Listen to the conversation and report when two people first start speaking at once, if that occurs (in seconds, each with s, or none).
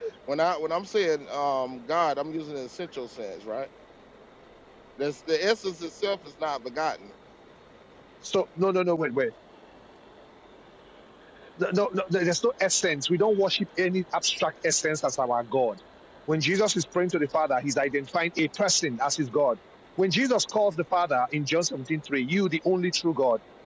none